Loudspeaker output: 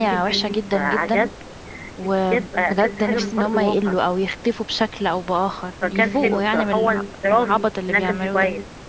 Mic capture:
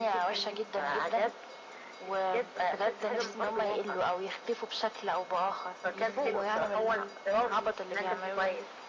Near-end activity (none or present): none